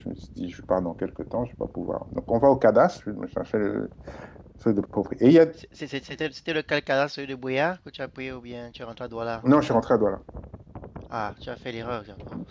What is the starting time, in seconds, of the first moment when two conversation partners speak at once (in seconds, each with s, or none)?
none